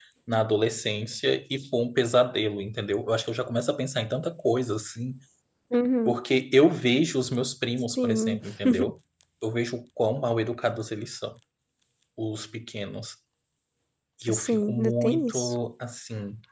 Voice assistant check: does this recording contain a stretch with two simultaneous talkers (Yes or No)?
Yes